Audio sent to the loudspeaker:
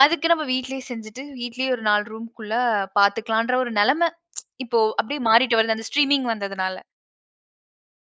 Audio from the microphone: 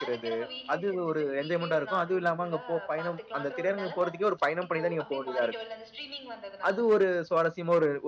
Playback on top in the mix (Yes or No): No